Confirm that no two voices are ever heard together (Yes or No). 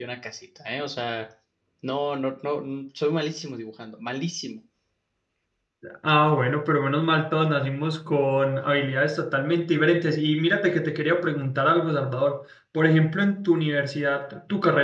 Yes